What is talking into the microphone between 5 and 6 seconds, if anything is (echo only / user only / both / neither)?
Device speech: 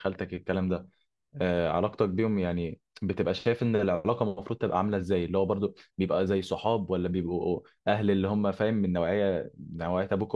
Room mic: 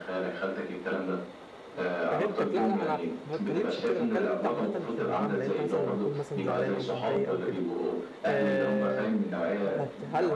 both